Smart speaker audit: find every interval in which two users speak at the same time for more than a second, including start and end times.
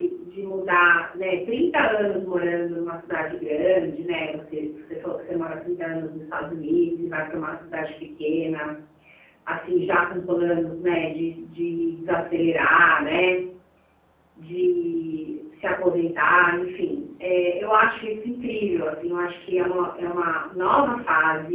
none

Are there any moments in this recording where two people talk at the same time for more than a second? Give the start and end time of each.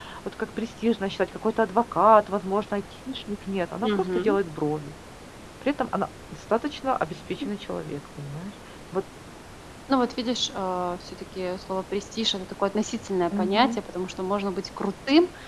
none

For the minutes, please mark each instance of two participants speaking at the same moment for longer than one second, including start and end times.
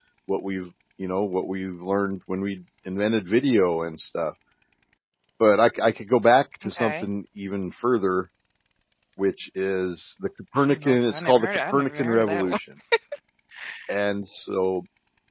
10.6-12.5

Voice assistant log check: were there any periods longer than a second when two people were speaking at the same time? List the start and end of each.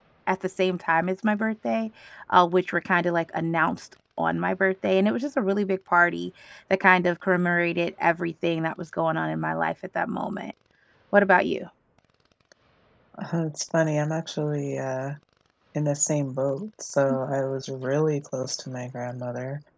none

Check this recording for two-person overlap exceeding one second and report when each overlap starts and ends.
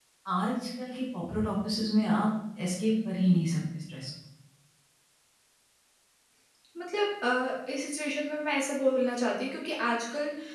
none

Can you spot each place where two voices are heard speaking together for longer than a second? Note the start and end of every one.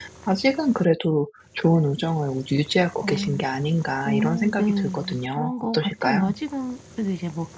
4.0-6.2

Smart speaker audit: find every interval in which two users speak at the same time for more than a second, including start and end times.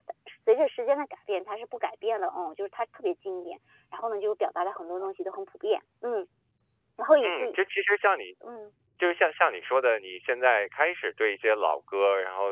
none

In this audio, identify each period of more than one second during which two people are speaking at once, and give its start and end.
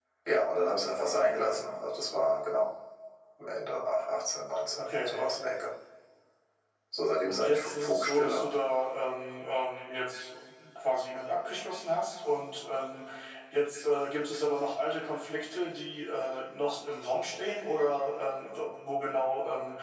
7.2-8.5

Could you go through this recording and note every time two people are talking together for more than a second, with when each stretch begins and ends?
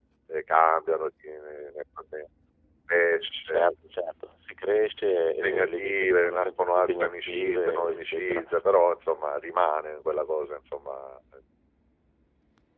5.4-8.4

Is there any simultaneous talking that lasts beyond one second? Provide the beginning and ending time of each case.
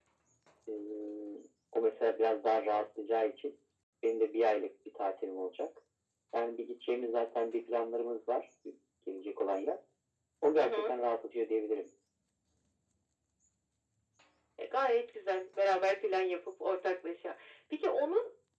none

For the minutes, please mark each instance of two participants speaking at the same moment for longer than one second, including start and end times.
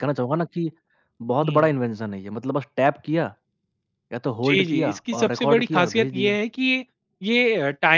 4.4-6.4

